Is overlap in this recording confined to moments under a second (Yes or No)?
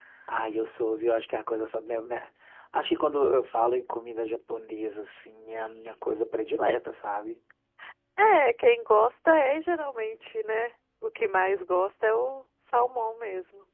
Yes